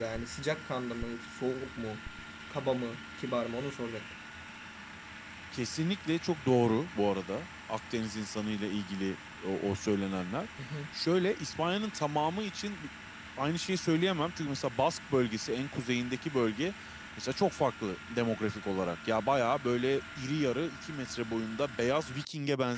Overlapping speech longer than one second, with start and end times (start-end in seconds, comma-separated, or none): none